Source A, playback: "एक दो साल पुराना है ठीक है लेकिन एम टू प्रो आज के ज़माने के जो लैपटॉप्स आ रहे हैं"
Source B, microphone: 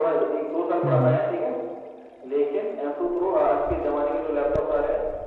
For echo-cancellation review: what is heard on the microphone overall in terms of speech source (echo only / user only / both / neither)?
both